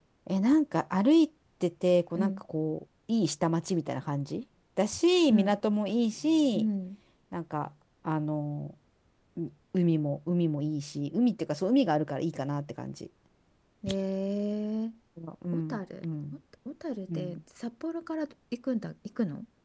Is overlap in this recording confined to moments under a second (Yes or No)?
Yes